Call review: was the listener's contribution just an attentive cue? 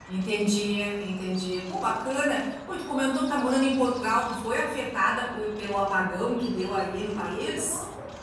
No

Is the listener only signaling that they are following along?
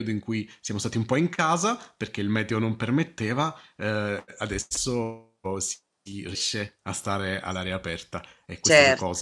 Yes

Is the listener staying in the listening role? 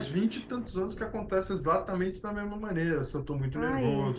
Yes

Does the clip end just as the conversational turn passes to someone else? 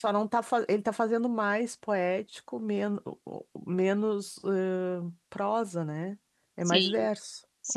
Yes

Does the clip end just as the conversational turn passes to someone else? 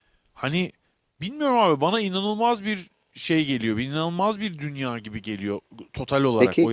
Yes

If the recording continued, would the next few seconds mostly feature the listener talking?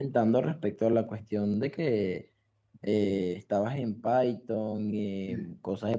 No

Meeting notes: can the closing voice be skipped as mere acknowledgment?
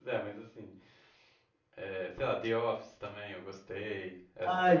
No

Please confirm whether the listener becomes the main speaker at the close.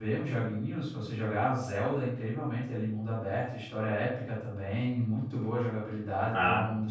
No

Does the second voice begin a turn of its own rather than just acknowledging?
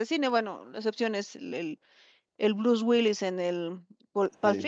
No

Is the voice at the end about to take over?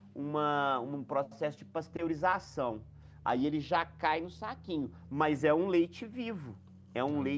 No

